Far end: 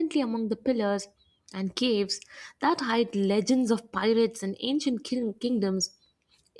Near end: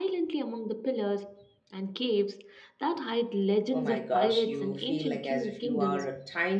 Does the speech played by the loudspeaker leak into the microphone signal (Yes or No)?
Yes